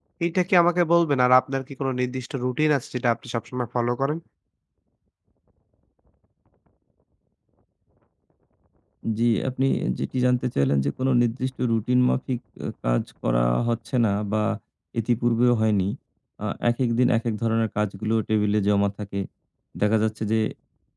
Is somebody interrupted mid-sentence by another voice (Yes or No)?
No